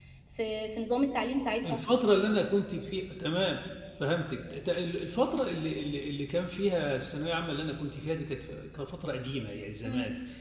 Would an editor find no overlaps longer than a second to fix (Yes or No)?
Yes